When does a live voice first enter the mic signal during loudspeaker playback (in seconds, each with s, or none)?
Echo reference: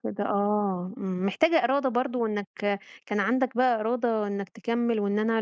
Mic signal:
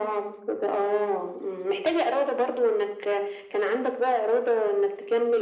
none